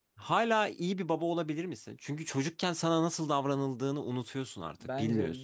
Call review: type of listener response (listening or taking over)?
taking over